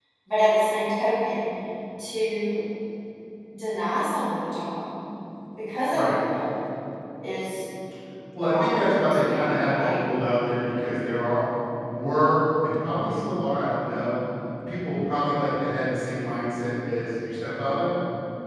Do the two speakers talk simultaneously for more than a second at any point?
Yes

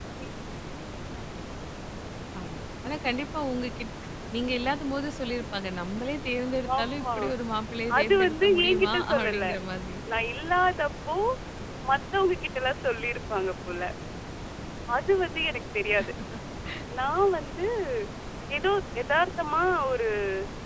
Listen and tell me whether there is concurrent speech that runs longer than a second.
Yes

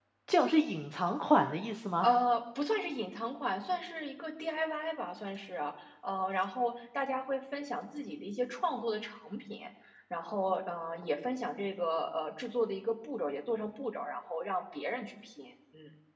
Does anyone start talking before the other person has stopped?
No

